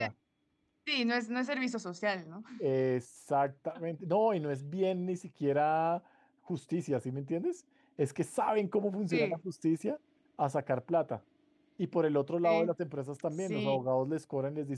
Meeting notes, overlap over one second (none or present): none